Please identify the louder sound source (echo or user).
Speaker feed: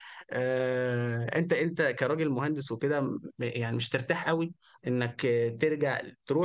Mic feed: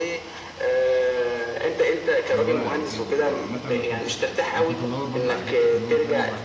echo